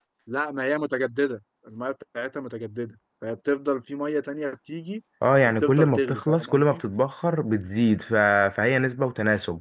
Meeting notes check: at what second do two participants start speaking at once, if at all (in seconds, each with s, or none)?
5.5 s